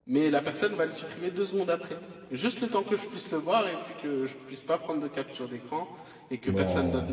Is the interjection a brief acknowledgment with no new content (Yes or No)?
Yes